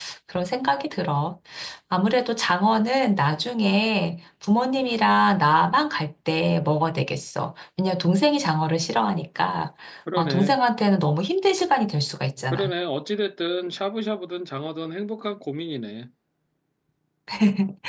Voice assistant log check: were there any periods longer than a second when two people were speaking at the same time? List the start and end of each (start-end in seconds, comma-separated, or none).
none